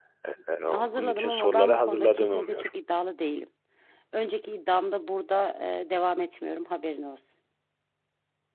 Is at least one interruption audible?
Yes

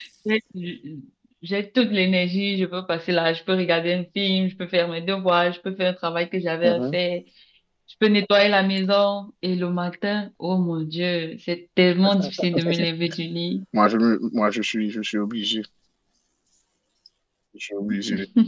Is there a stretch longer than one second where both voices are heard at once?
No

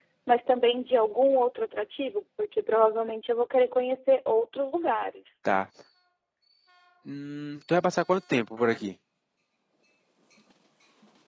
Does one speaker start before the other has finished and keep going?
No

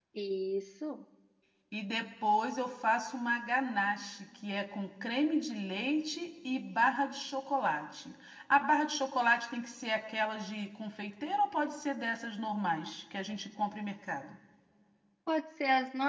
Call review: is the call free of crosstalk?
Yes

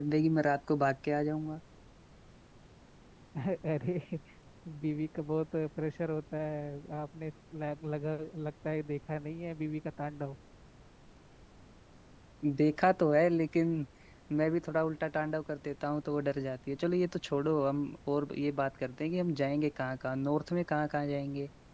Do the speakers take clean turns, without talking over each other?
Yes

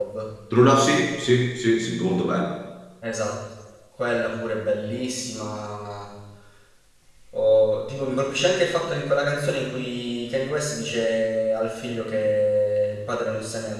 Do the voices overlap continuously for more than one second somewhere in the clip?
No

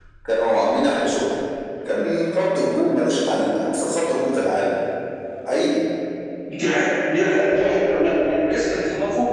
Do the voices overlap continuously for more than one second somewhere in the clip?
No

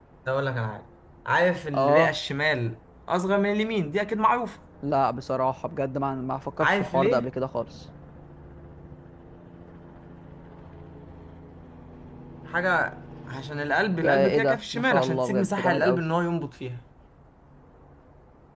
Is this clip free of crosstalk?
No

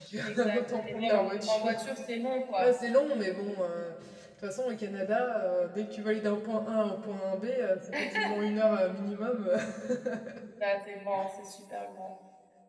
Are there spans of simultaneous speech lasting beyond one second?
Yes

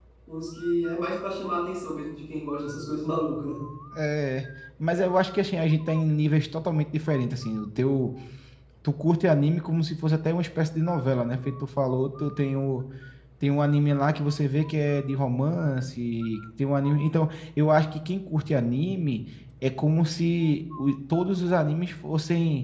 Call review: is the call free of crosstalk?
Yes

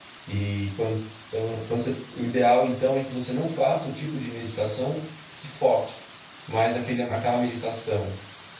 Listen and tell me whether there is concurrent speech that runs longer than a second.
No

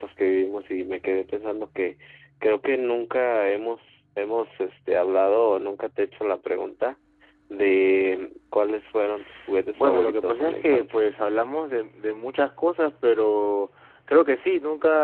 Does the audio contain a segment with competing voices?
Yes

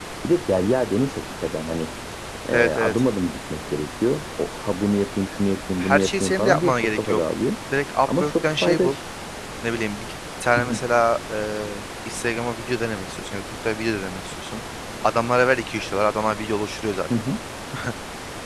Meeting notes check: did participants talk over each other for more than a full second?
Yes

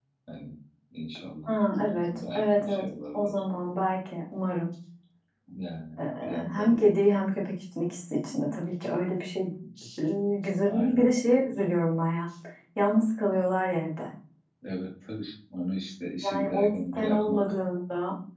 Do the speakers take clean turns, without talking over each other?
No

